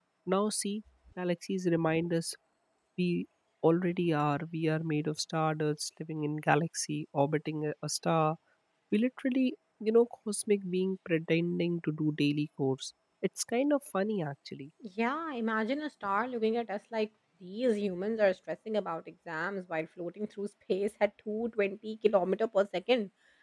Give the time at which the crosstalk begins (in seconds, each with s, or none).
none